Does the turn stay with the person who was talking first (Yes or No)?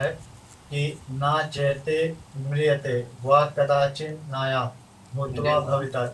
Yes